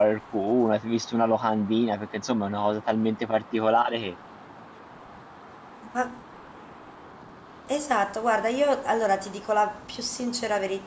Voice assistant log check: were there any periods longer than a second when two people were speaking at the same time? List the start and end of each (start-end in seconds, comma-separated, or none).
none